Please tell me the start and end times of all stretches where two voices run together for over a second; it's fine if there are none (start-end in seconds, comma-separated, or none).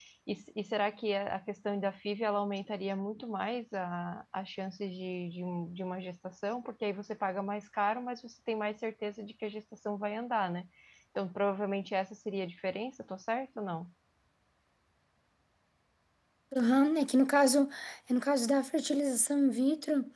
none